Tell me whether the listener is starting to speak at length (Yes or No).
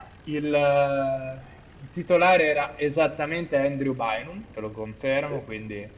No